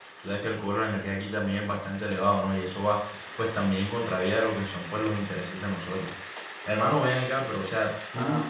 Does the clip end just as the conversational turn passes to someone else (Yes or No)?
No